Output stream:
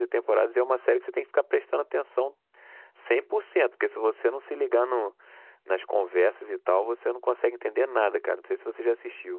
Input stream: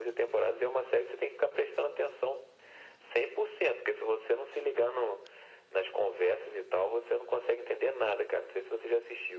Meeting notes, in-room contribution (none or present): none